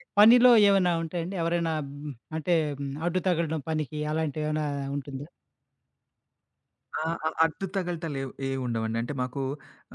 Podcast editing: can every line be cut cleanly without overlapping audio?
Yes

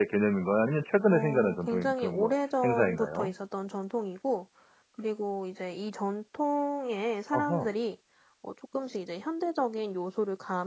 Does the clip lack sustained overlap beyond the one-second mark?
No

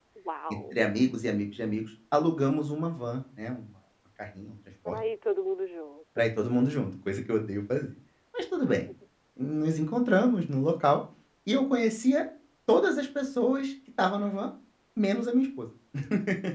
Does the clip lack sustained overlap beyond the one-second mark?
Yes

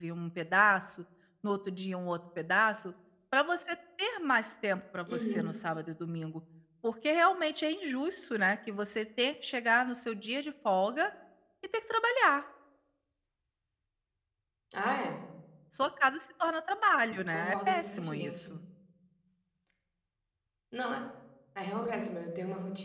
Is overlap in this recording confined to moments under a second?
No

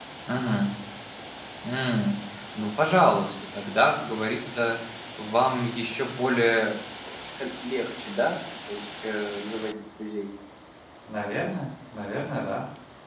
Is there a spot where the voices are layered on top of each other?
No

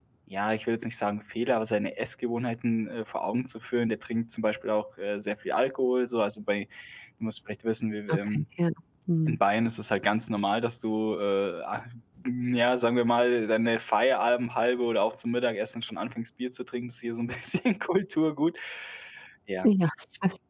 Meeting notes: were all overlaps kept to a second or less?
Yes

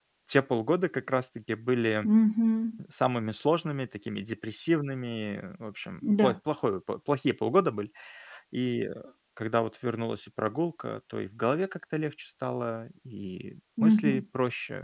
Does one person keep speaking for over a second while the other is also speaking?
No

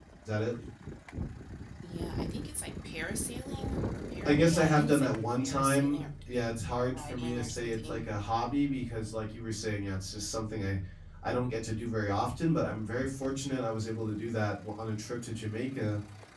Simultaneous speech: Yes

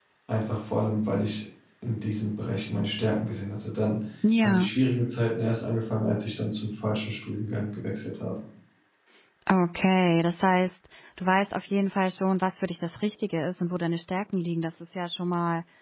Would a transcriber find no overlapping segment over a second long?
Yes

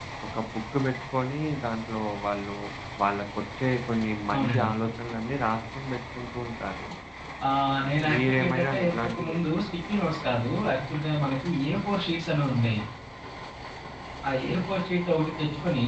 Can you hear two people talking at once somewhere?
Yes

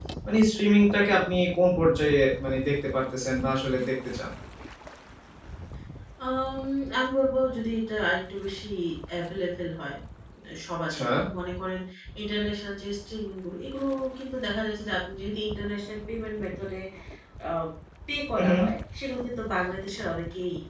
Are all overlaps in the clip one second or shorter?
Yes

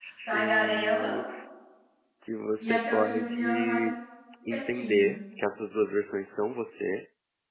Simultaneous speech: Yes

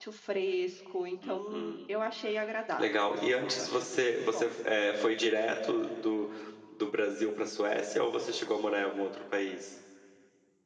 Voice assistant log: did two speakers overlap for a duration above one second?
Yes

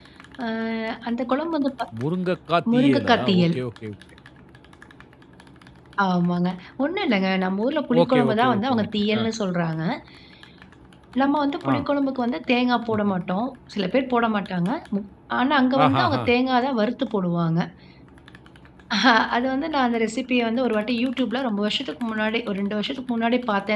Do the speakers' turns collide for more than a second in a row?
Yes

